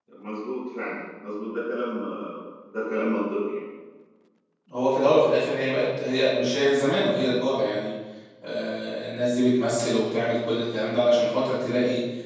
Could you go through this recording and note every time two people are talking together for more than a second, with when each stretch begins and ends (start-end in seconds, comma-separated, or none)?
none